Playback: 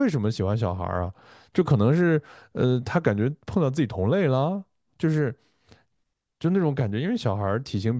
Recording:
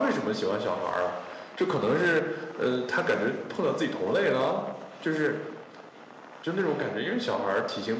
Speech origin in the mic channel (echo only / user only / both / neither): echo only